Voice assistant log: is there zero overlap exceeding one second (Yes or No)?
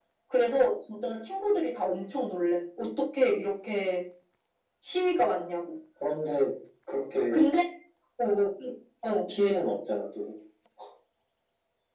Yes